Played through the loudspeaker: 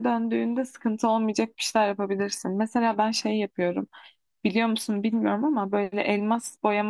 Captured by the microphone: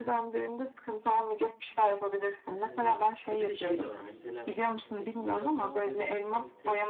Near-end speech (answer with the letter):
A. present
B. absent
A